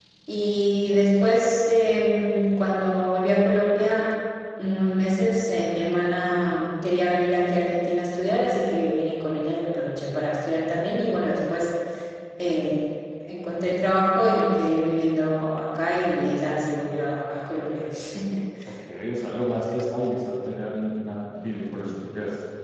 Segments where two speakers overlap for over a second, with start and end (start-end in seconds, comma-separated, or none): none